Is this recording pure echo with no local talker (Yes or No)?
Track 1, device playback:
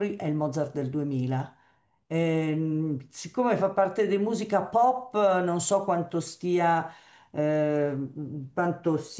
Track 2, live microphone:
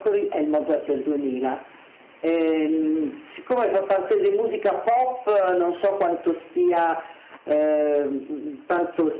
Yes